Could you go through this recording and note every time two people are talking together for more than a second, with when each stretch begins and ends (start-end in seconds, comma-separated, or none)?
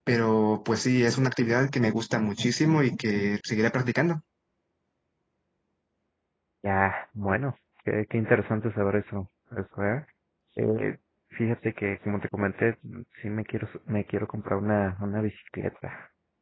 none